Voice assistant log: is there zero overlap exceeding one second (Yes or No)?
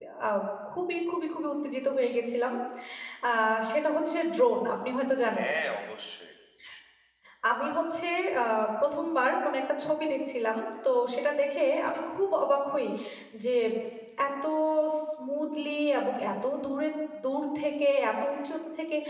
Yes